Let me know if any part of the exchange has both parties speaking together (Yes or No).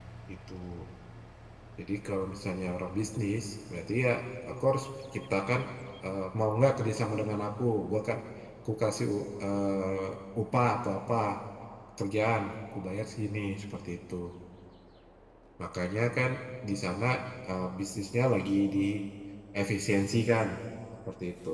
No